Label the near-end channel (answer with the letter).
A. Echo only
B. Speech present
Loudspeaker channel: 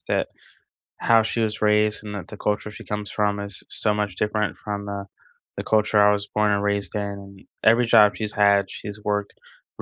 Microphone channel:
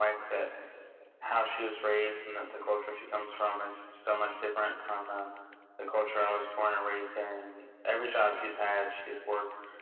A